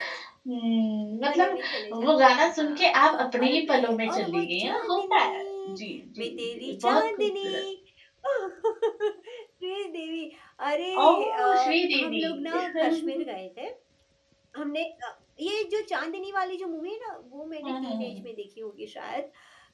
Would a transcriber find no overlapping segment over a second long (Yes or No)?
No